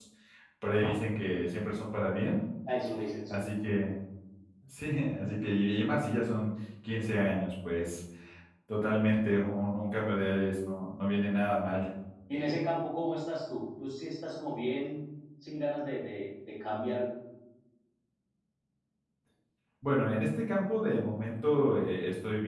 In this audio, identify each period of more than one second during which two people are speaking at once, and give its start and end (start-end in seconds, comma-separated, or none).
none